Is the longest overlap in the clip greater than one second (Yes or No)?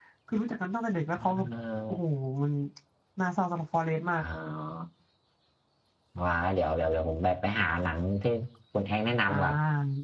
No